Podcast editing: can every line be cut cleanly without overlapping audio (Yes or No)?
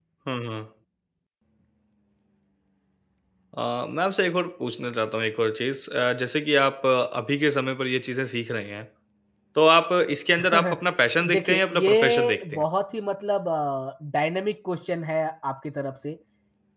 No